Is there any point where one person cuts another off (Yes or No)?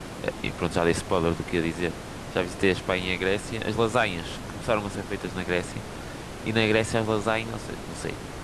No